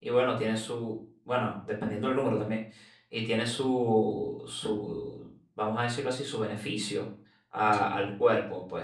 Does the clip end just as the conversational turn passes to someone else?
No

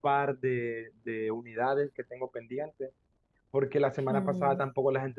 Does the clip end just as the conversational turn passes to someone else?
No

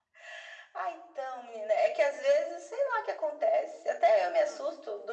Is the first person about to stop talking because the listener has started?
No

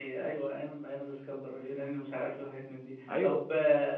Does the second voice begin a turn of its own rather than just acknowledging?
No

